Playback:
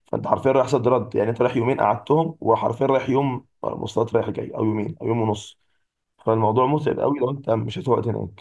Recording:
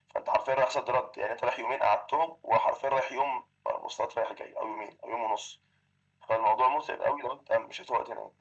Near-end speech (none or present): none